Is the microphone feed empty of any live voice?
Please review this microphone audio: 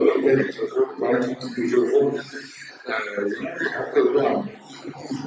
Yes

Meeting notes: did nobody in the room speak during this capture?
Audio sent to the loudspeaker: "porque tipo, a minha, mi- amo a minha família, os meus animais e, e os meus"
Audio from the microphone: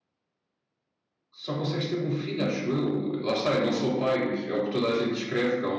No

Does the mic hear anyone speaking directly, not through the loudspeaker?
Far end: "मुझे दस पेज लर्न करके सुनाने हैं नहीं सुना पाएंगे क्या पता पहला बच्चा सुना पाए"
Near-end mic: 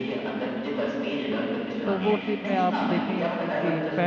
Yes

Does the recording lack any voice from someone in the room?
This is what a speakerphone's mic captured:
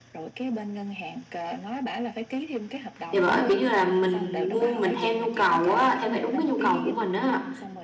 No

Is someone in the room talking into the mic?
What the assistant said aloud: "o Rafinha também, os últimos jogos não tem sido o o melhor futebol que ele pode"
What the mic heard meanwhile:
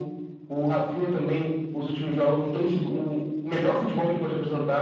No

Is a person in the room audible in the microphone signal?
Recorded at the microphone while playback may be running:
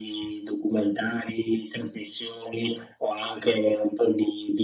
No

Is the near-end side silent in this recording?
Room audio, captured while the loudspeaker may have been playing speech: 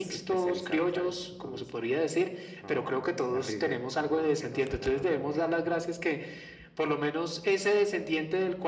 Yes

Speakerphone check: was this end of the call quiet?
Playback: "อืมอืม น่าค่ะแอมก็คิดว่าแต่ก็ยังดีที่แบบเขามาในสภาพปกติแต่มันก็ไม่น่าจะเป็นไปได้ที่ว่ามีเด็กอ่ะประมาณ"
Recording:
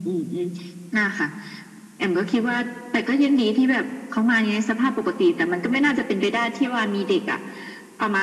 Yes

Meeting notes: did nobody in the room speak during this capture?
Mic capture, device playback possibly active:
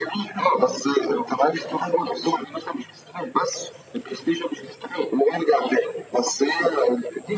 Yes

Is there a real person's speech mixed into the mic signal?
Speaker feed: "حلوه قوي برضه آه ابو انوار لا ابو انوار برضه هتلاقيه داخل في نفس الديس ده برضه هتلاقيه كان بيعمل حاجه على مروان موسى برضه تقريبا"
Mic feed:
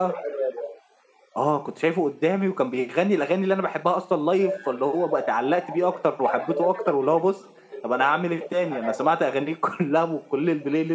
Yes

